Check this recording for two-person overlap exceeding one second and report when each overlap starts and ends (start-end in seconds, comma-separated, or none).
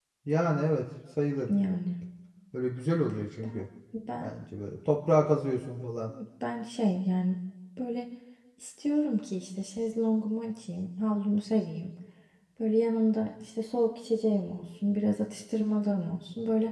none